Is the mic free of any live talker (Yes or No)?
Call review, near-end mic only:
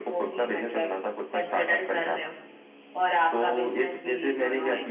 Yes